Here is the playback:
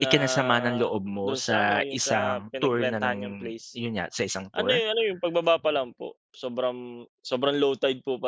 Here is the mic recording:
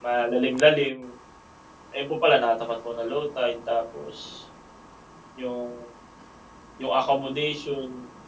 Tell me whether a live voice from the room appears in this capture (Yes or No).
Yes